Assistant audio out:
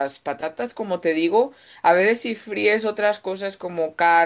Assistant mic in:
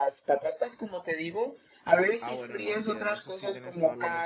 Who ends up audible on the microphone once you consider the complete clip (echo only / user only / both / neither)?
both